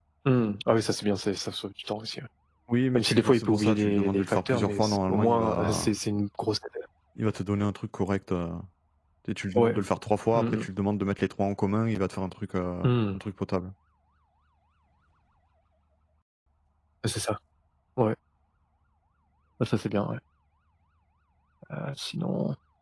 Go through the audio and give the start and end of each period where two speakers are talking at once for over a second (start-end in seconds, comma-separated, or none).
3.0-5.9